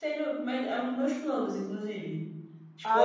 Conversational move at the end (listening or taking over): taking over